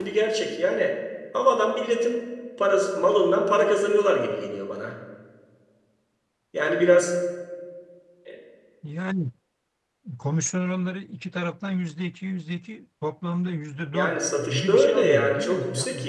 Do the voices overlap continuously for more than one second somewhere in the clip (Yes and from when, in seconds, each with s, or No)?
Yes, from 13.9 s